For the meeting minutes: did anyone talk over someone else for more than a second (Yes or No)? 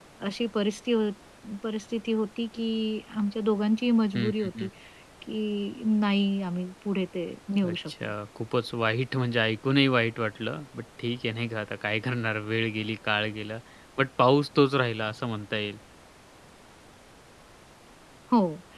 No